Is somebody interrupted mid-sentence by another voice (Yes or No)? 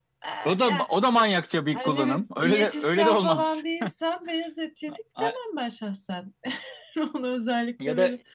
Yes